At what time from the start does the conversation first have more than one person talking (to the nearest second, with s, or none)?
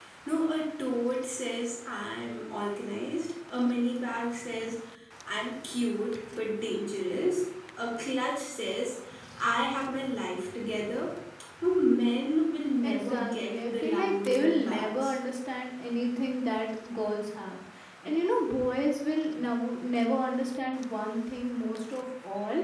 13 s